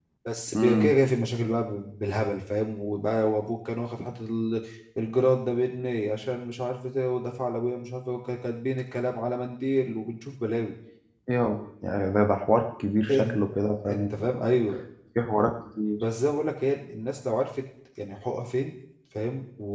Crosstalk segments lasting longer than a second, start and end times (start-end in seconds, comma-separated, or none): none